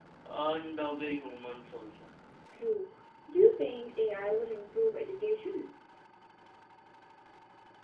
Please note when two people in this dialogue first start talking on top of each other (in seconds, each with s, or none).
none